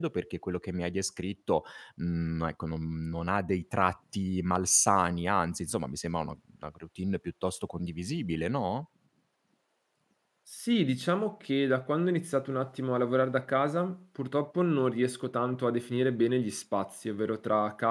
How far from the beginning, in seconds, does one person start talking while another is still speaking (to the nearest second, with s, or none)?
none